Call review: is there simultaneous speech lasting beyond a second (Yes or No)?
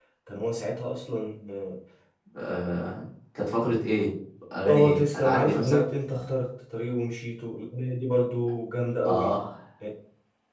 Yes